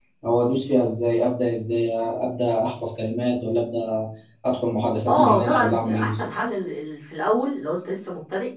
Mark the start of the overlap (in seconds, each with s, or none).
5.1 s